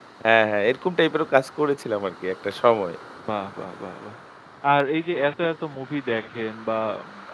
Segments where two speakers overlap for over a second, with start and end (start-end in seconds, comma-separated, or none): none